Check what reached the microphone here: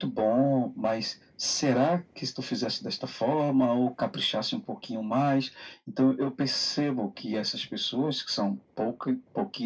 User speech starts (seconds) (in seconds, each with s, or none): none